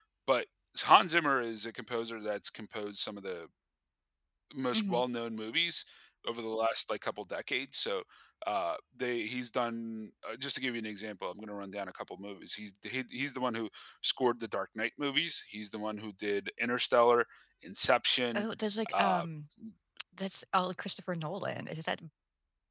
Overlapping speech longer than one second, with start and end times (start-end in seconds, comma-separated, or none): none